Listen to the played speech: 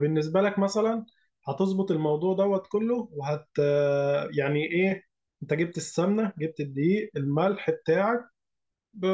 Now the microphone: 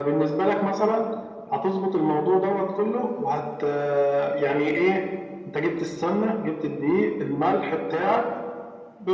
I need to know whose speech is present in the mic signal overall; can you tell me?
echo only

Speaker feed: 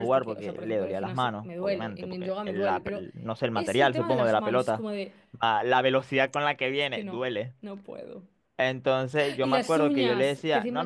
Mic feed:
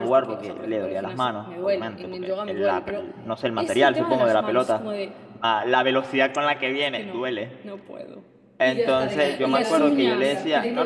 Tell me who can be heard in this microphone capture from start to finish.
both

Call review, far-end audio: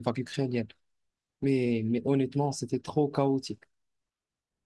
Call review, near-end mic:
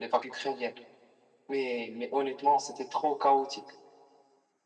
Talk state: echo only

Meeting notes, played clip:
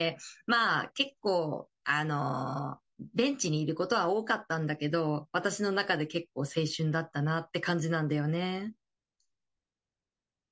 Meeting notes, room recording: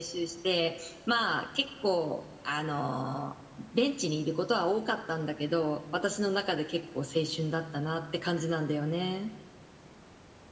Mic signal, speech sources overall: echo only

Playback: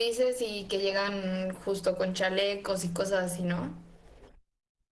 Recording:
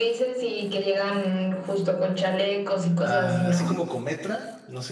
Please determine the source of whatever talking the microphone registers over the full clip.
both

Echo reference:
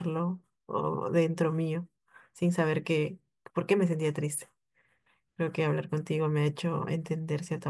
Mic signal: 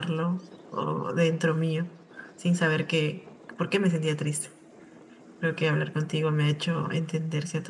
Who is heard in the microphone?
echo only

